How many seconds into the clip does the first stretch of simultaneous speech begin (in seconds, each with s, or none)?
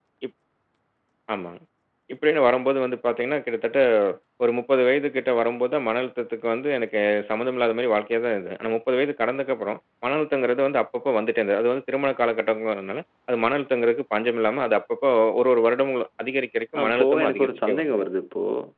16.8 s